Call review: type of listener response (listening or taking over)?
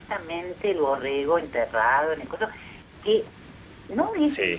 listening